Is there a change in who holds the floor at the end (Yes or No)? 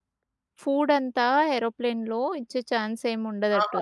Yes